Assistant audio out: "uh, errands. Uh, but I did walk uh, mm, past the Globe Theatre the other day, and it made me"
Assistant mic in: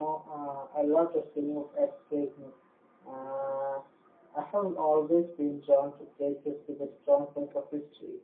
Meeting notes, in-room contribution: present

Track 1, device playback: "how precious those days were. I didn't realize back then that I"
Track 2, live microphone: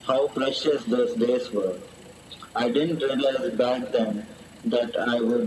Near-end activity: none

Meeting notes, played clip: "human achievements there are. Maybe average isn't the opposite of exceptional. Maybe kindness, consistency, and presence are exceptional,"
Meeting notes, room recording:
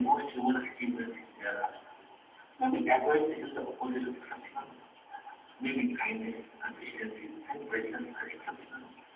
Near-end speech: none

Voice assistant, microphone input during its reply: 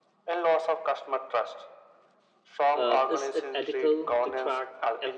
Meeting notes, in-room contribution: present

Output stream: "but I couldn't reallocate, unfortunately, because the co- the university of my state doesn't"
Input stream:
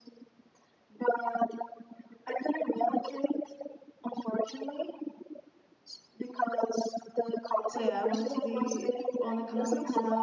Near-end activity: present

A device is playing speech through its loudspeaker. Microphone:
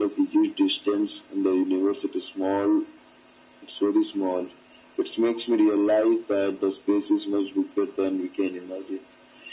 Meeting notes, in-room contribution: none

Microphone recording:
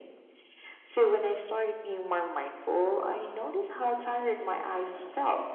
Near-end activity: none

